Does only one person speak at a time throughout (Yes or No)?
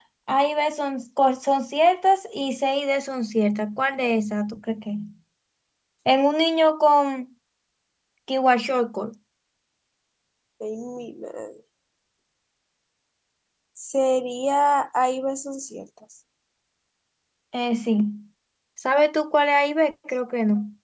Yes